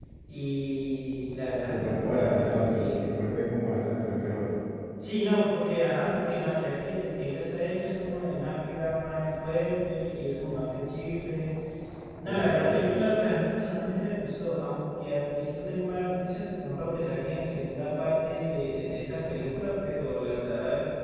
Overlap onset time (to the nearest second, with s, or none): 2 s